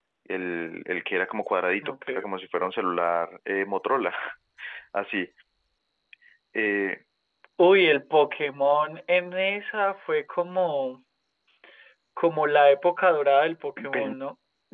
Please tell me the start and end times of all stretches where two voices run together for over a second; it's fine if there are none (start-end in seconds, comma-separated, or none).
none